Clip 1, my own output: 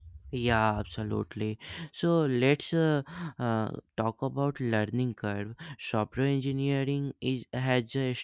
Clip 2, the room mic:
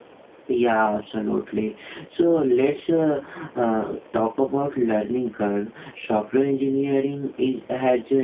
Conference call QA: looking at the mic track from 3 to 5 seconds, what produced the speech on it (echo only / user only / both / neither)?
echo only